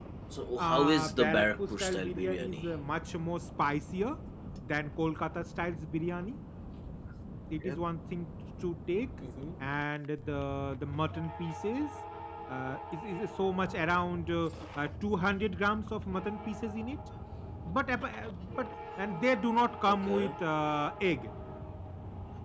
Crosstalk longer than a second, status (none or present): present